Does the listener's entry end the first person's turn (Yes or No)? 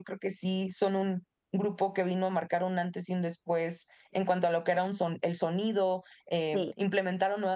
No